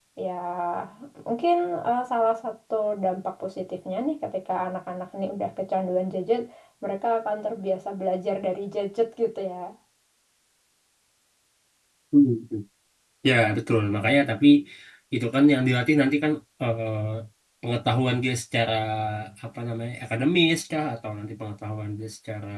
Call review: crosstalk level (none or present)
none